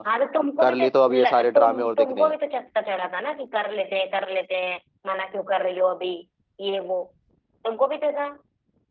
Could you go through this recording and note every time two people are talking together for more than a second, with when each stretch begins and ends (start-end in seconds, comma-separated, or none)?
0.6-2.4